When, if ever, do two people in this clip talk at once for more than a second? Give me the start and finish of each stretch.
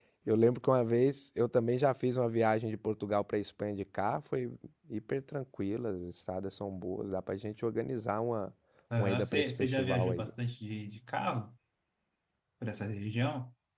9.0-10.3

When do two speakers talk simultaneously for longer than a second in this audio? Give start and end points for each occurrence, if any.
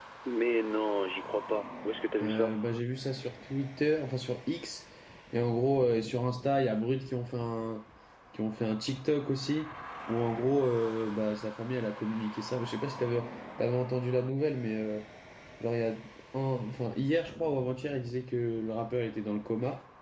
none

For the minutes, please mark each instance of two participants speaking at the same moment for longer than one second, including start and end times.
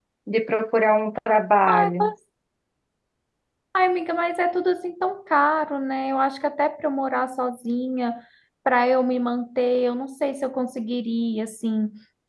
none

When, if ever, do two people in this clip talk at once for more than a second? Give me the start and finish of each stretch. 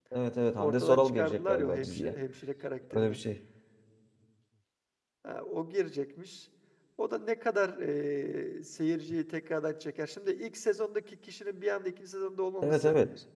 0.6-2.2

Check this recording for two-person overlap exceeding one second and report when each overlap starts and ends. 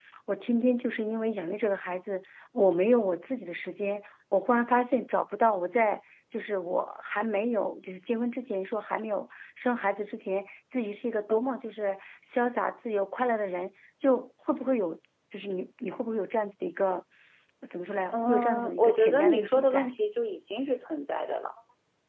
18.1-19.9

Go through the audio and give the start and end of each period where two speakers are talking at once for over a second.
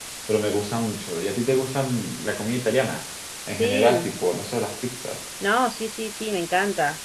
none

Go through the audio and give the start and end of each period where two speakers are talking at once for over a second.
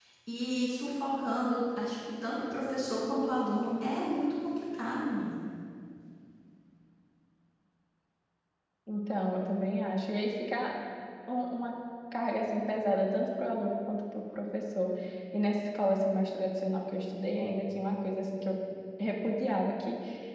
none

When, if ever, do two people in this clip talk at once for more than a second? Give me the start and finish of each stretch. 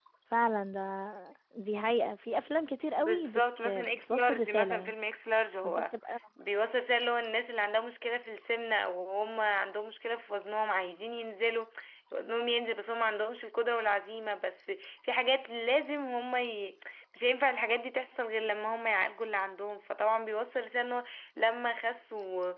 3.0-4.9

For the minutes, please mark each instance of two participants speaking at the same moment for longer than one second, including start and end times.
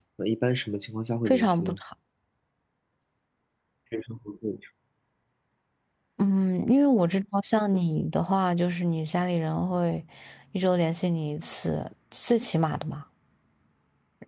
none

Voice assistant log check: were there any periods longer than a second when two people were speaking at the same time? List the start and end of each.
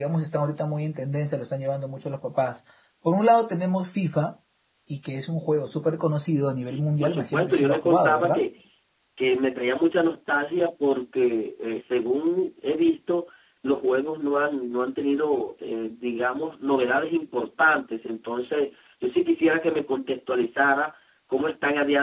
7.0-8.4

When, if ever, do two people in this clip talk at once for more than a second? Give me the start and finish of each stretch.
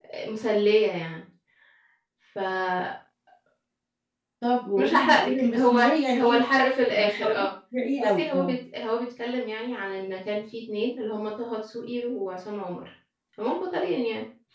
4.9-6.4

